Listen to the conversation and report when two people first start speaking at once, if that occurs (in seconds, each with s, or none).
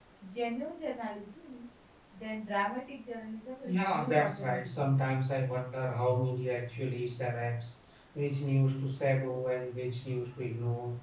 3.6 s